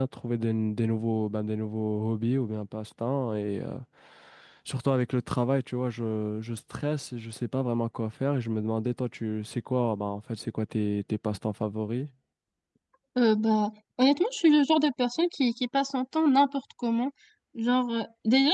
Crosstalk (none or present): none